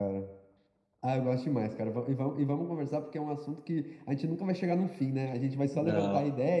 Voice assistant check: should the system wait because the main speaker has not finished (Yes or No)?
Yes